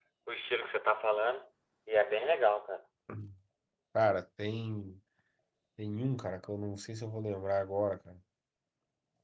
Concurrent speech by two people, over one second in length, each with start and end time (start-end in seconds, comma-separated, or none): none